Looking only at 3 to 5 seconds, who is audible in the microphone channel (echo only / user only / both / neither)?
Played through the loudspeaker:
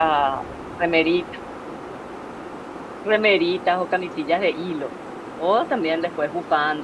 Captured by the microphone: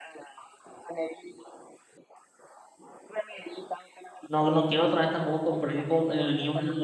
both